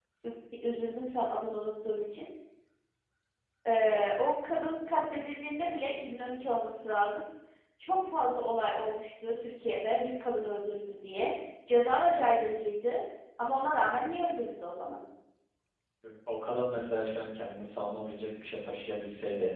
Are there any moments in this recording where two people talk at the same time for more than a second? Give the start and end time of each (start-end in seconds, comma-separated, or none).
none